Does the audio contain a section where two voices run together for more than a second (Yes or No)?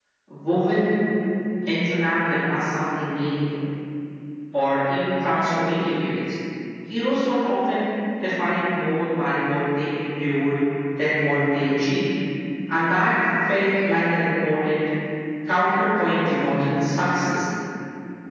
No